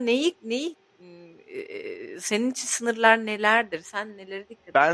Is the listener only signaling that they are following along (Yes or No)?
No